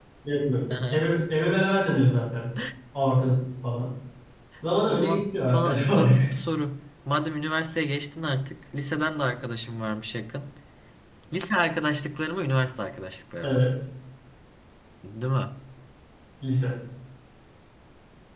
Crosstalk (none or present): present